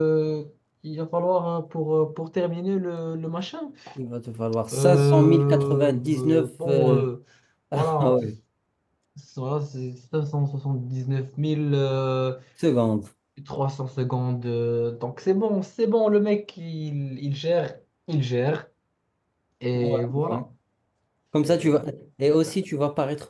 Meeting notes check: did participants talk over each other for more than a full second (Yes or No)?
Yes